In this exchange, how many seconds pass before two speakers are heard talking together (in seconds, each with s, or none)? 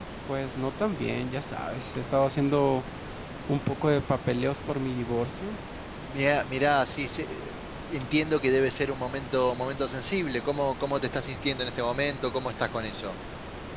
none